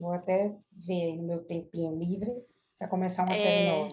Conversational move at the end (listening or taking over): taking over